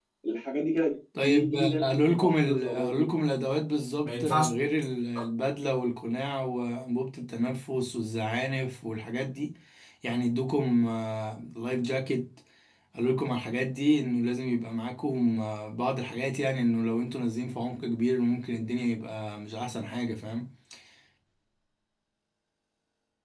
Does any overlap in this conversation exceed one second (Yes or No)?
Yes